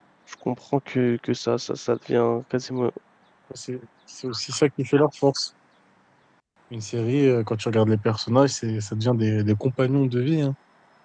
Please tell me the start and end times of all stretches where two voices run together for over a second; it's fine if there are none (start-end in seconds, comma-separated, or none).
none